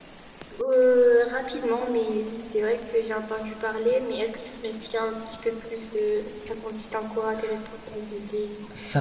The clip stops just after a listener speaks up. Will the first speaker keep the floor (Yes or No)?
No